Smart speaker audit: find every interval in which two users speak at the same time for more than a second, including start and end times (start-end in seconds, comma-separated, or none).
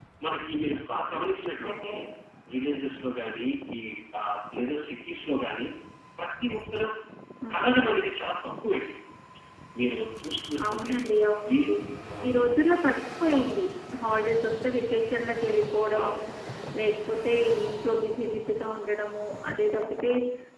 none